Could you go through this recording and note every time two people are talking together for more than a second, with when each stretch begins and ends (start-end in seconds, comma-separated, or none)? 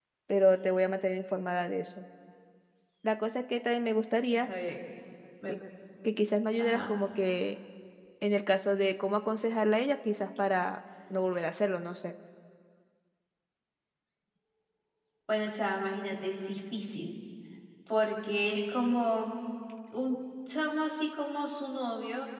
none